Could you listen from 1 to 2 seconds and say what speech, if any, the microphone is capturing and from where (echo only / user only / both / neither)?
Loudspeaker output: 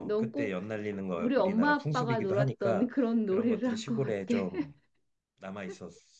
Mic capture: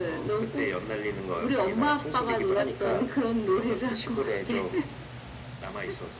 echo only